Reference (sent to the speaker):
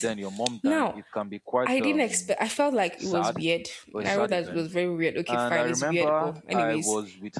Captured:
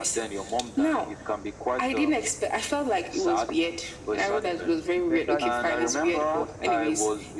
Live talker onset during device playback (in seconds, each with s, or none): 4.9 s